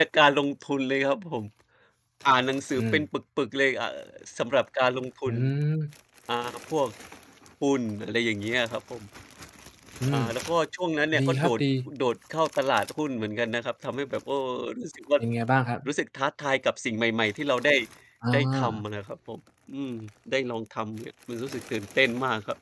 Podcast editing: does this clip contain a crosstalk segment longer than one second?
No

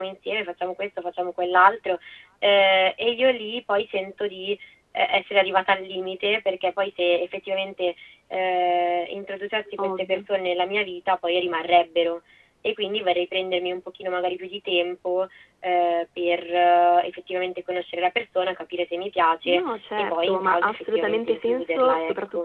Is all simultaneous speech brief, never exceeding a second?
No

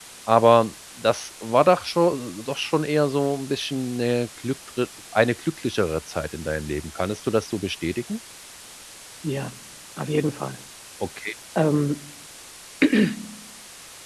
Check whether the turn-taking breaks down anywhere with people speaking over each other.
No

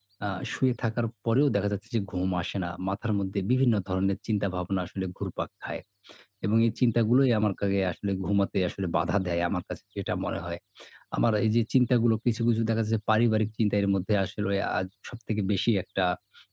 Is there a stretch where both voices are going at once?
No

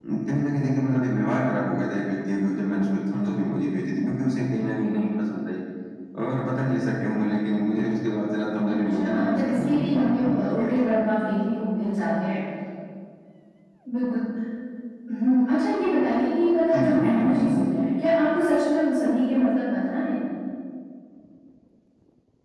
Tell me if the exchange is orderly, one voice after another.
No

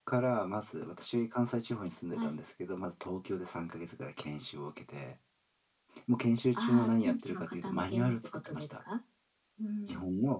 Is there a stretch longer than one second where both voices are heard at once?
Yes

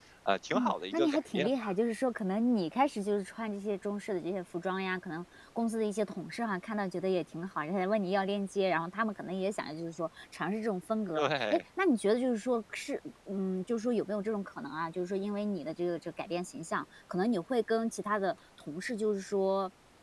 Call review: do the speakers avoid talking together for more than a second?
No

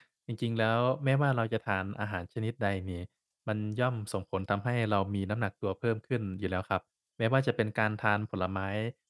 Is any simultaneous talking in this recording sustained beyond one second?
No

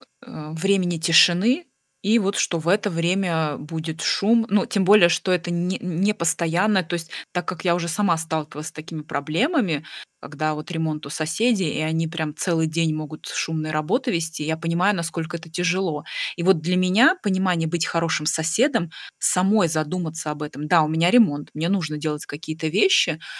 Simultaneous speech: No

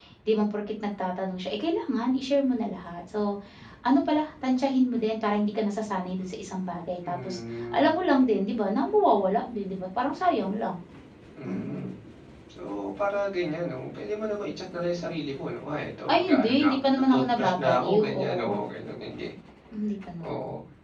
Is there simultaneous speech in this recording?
Yes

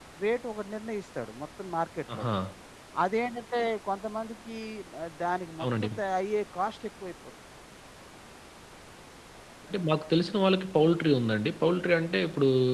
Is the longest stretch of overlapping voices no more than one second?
Yes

